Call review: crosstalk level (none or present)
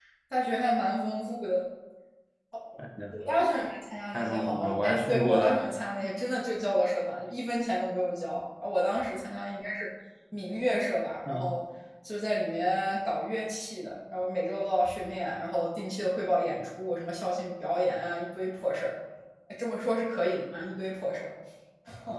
present